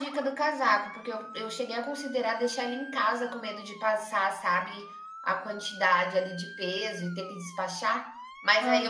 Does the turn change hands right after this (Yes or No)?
No